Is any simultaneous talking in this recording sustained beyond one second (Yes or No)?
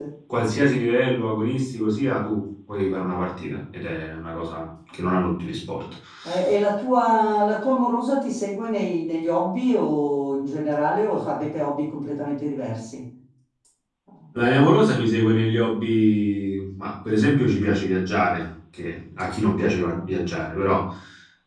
No